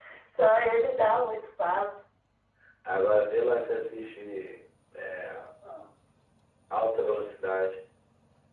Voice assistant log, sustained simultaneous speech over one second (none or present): none